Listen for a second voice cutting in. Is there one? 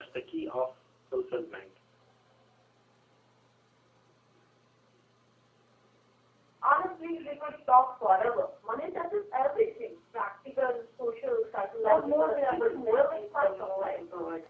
Yes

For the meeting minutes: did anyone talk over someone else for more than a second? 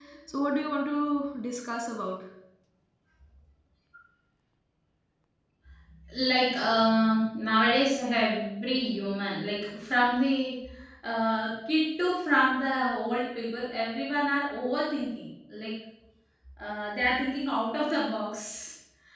No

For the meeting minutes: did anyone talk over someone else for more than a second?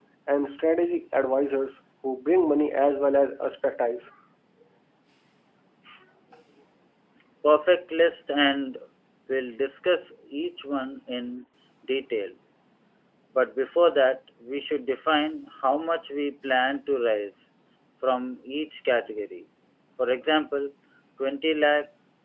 No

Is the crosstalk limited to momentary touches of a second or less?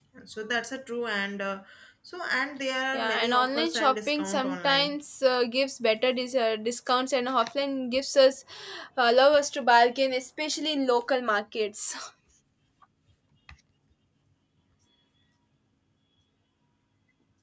No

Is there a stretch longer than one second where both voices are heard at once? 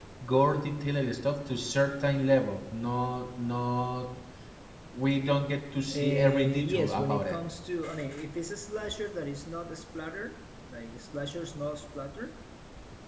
Yes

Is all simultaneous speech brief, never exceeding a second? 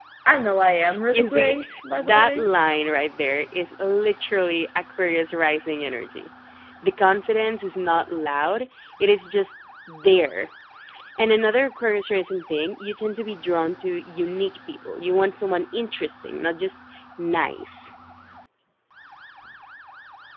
No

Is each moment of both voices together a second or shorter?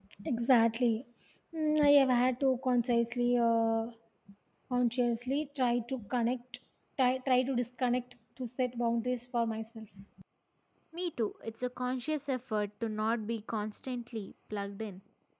Yes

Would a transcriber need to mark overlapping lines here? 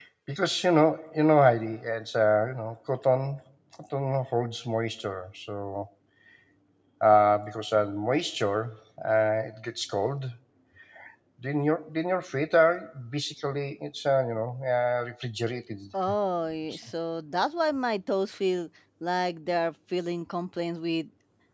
No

